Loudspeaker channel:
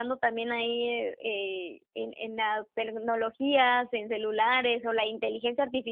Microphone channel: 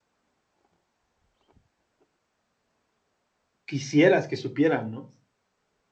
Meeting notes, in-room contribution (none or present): present